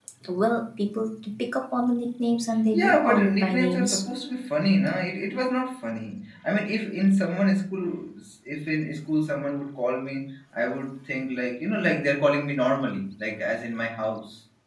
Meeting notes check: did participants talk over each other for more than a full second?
Yes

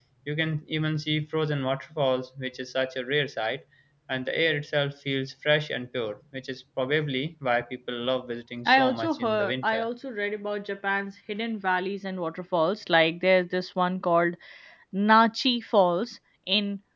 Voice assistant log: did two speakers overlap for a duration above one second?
Yes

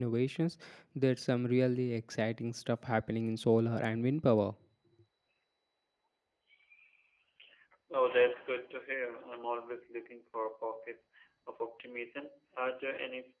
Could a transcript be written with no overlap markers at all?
Yes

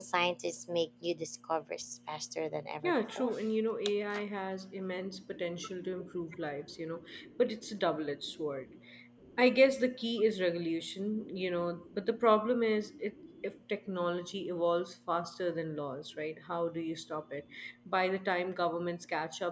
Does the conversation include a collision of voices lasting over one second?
No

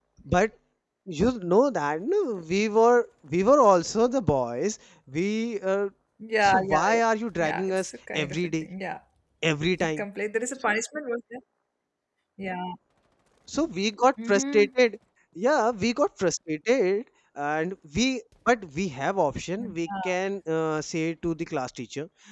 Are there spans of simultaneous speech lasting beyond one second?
Yes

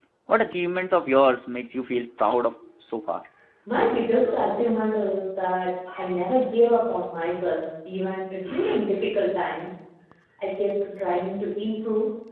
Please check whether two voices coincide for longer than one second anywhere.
No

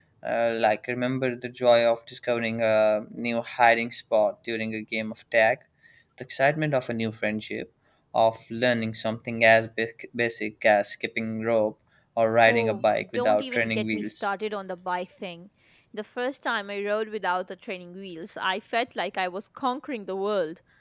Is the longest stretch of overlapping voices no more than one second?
No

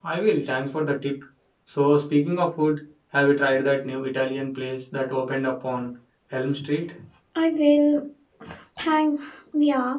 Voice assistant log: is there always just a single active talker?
Yes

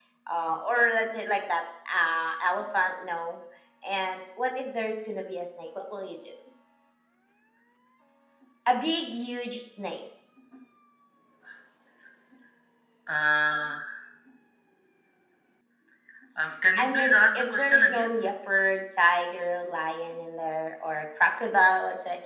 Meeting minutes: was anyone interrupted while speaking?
Yes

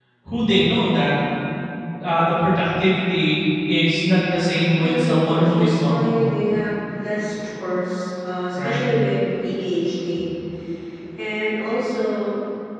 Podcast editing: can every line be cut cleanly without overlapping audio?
No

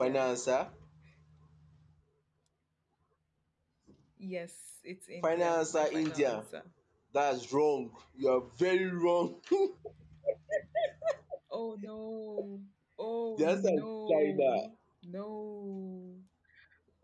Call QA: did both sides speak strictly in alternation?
No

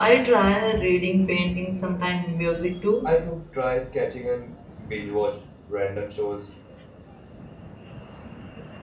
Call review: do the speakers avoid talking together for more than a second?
Yes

